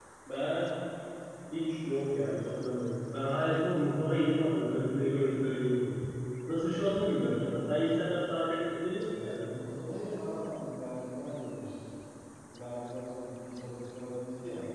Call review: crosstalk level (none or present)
none